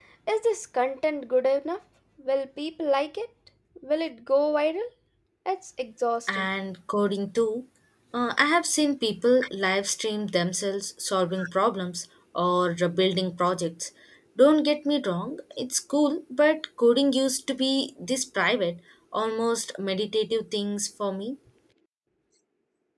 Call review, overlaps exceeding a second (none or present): none